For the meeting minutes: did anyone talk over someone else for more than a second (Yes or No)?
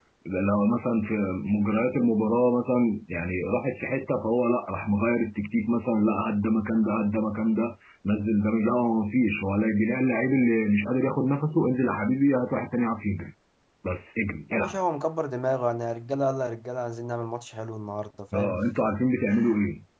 No